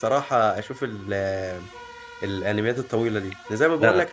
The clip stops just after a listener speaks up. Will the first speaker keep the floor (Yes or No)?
Yes